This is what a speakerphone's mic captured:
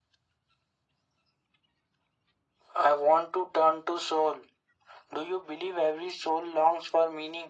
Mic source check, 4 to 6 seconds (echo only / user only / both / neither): echo only